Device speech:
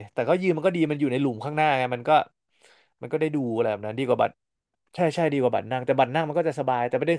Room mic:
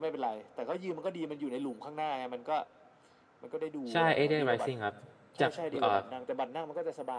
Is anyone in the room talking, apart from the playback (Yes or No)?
Yes